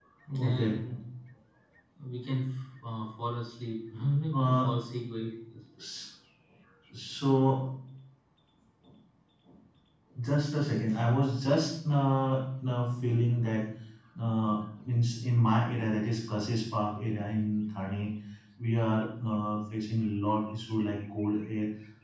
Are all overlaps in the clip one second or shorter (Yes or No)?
Yes